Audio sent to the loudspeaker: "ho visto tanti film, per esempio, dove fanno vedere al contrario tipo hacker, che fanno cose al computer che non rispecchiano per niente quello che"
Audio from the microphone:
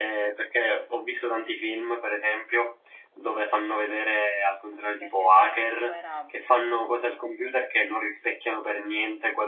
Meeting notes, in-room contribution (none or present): present